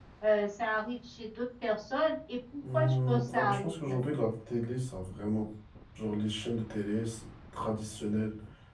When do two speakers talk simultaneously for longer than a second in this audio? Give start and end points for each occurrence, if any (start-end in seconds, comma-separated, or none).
2.7-4.2